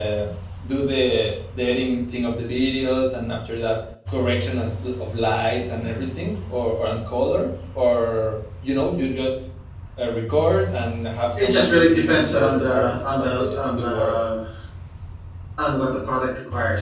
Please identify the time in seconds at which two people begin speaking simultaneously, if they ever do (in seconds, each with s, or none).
11.4 s